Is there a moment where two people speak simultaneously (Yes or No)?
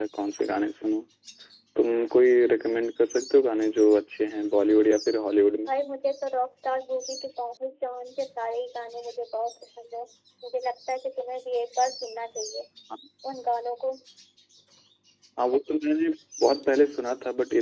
No